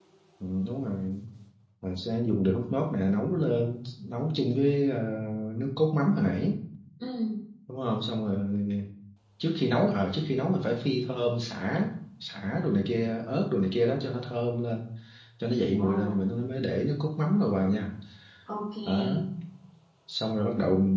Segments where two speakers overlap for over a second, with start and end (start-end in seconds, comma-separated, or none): none